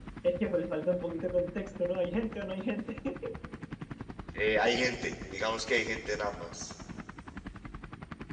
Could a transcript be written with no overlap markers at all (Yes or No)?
Yes